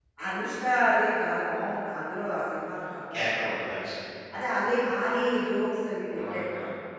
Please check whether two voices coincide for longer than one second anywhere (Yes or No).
No